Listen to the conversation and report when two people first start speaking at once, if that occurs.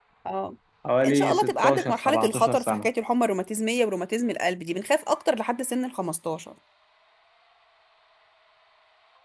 1.1 s

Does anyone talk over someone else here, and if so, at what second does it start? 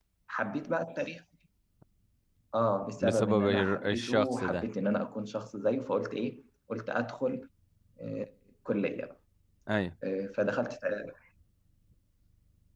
3.0 s

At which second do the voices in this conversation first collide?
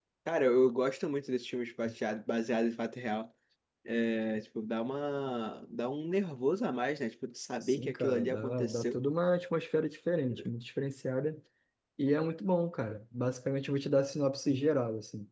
7.6 s

